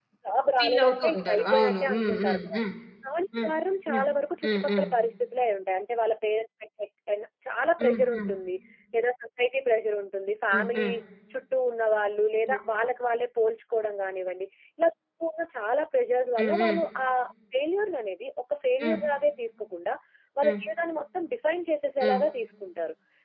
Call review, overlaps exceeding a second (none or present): present